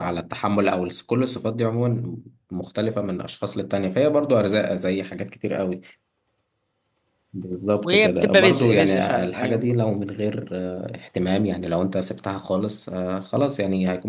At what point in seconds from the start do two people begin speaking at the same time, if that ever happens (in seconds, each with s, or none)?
7.8 s